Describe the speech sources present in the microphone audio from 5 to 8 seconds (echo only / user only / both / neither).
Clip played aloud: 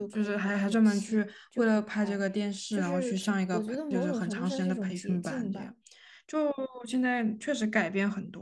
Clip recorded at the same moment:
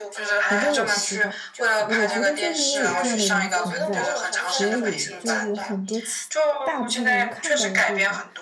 both